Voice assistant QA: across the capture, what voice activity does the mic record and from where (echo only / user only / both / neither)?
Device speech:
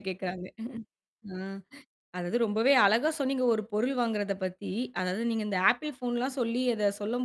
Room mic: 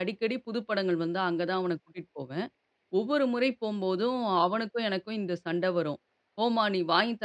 user only